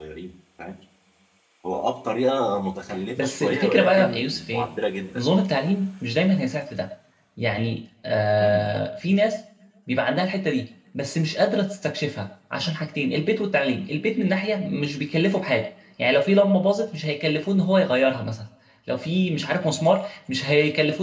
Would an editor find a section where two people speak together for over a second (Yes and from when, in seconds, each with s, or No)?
Yes, from 3.2 s